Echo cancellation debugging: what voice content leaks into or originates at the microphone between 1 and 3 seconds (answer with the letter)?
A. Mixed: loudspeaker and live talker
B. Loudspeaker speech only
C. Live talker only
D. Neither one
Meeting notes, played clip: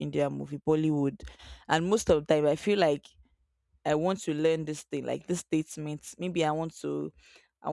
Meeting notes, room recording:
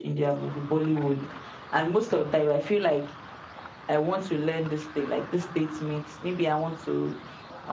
B